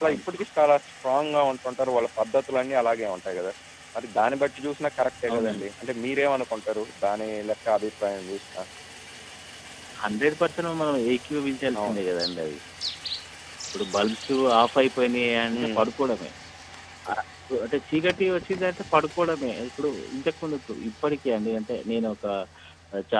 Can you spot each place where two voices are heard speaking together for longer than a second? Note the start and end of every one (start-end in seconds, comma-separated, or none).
none